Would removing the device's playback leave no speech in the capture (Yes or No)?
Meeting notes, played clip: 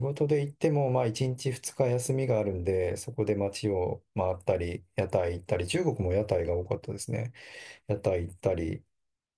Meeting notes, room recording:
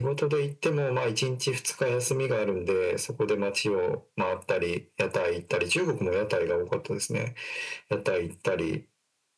Yes